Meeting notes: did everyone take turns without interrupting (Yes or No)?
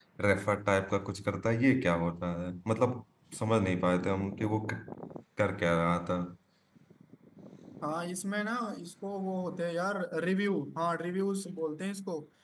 Yes